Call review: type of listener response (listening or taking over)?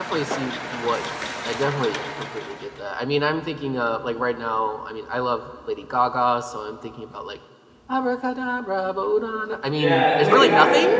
taking over